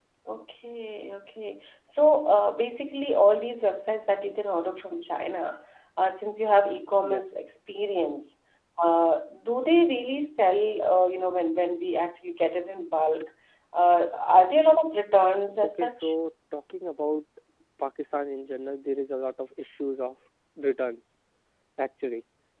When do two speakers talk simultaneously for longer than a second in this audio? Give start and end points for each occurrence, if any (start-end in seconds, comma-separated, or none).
none